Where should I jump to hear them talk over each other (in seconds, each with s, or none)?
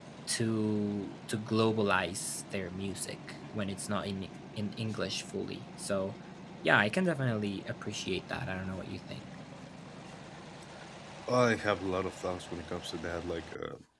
none